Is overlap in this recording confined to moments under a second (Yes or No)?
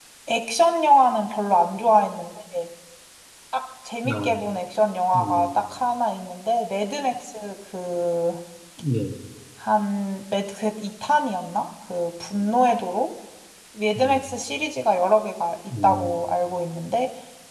Yes